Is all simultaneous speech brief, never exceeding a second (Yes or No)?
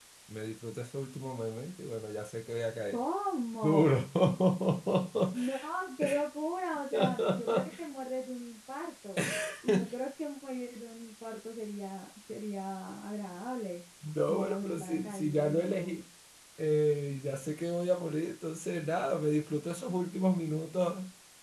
No